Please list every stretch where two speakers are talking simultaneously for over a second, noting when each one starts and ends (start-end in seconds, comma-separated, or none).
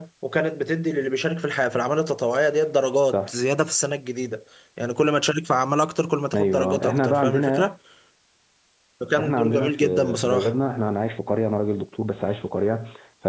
6.3-7.7, 9.2-10.6